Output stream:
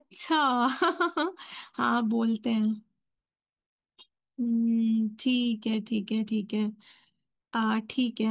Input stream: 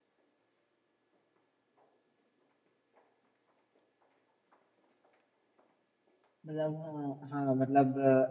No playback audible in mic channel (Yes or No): Yes